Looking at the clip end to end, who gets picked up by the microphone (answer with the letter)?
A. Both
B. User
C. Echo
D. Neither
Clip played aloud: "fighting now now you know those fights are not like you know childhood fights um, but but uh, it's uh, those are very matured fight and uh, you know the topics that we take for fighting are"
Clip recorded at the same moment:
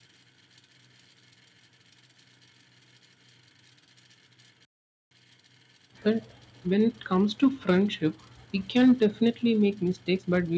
B